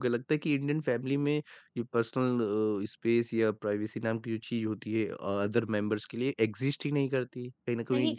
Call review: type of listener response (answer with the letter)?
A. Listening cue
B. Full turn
A